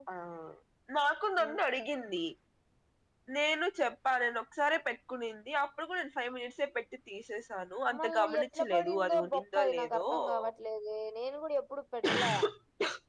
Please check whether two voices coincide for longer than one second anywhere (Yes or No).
Yes